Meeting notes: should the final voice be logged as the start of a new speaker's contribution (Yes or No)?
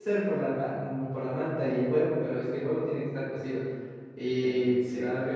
No